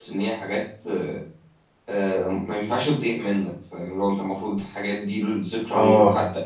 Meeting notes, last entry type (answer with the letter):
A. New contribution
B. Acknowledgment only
B